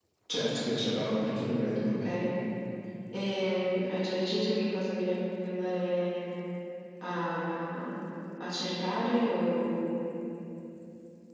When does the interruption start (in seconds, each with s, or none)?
none